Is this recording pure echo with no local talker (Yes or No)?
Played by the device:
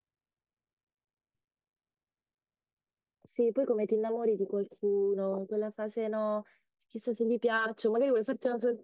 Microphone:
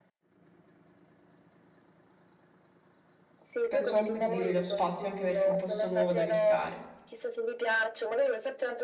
No